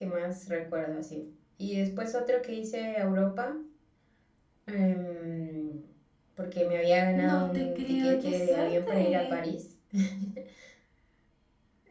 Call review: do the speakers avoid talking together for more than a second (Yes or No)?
No